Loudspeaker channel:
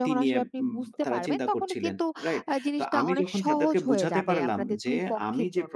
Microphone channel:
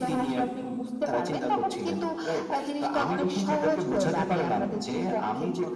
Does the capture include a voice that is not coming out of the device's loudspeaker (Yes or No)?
No